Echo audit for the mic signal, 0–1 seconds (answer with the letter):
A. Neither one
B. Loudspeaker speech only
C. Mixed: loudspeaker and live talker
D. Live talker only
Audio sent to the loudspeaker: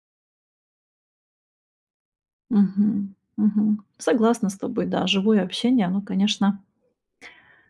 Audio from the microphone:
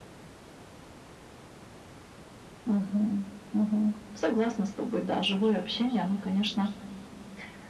A